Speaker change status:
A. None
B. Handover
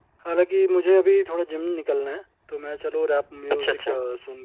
A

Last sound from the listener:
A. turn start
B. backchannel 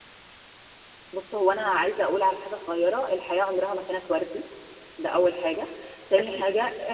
B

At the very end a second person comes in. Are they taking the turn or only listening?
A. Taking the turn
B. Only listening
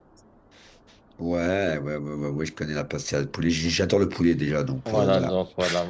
A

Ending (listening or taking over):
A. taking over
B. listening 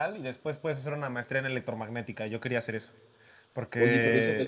A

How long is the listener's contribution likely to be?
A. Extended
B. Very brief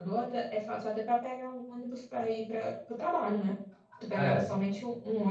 B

